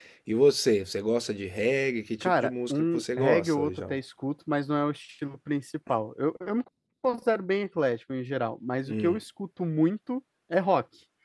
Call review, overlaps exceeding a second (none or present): present